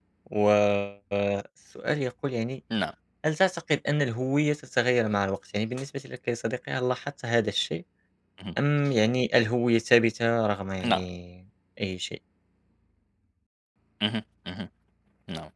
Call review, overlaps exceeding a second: none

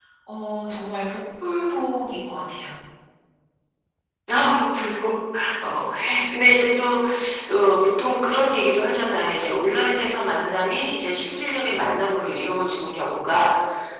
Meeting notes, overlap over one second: none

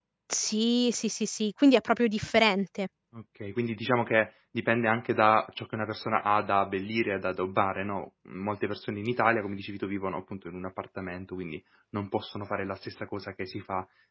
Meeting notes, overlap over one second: none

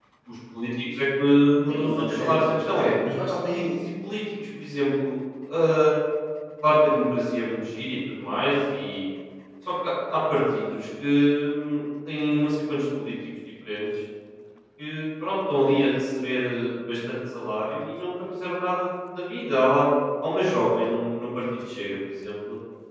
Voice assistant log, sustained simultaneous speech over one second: present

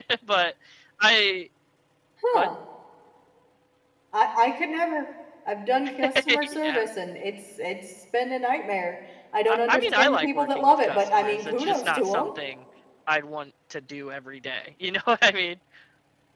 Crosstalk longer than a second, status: present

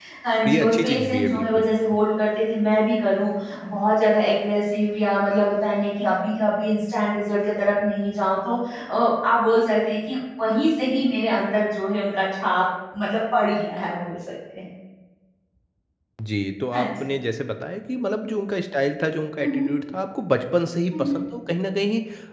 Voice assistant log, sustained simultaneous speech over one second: present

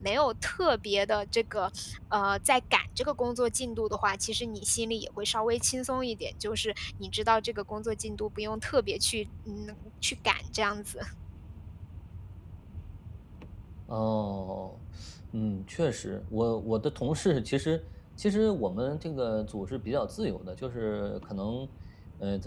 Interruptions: none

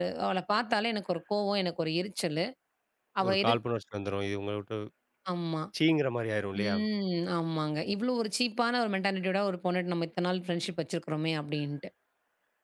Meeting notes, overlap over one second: none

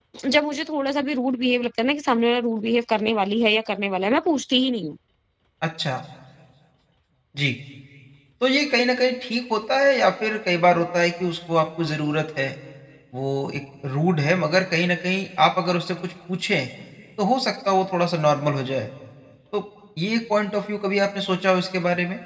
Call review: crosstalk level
none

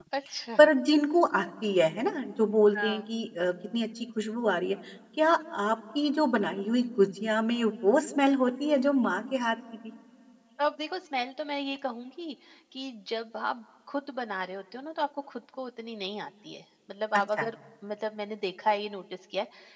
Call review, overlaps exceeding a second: none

